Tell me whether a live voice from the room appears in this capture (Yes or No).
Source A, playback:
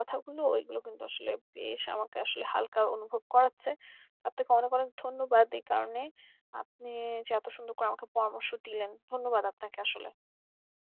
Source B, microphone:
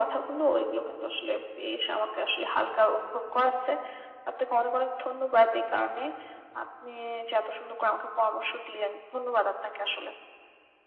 No